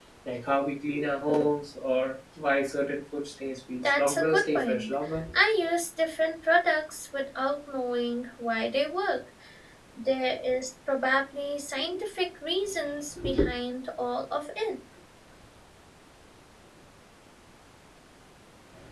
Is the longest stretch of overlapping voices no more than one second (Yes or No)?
No